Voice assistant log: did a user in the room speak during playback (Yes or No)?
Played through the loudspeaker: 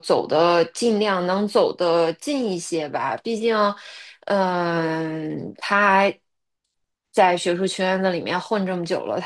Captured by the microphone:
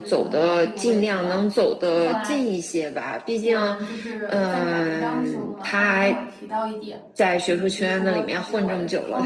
Yes